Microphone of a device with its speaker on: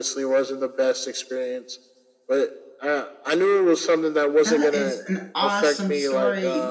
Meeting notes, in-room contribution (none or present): present